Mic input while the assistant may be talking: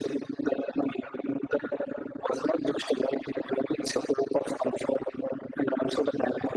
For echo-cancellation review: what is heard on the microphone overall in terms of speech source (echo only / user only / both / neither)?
echo only